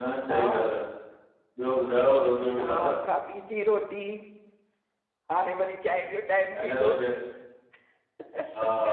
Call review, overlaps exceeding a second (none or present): none